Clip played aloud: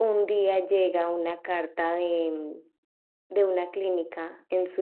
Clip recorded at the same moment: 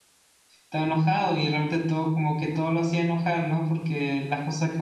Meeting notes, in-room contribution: present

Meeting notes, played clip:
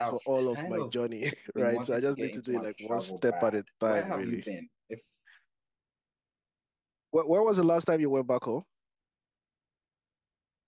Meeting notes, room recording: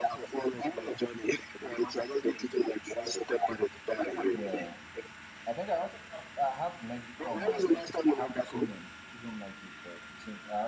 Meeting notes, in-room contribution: present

